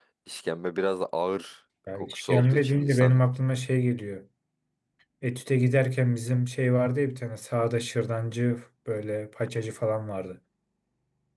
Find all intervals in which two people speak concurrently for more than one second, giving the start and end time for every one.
2.0-3.2

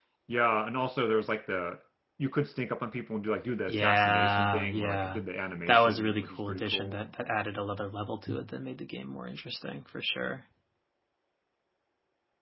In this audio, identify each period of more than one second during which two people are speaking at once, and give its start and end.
3.7-5.2, 5.7-7.0

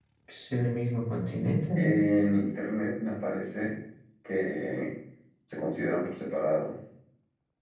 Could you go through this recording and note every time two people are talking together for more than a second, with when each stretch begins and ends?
none

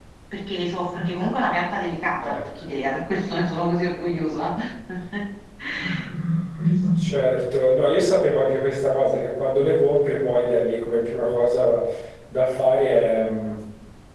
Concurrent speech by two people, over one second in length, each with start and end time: none

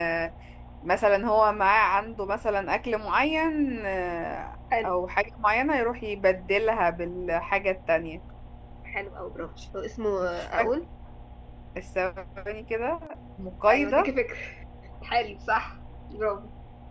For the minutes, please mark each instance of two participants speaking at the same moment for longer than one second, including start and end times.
none

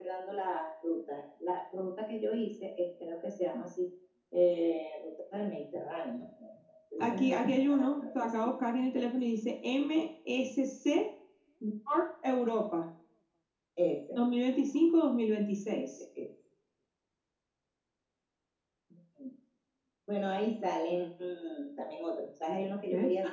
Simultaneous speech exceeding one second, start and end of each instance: 7.0-8.5

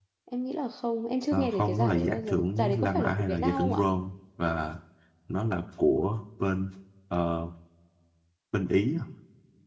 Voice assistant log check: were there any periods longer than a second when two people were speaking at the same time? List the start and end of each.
1.3-3.9

